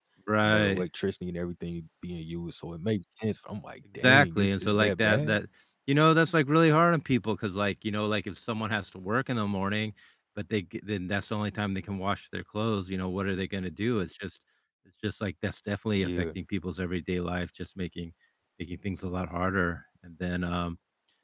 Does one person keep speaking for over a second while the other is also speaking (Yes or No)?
Yes